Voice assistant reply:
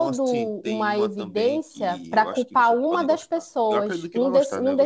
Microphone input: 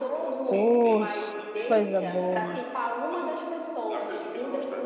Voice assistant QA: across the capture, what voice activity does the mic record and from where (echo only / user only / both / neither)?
both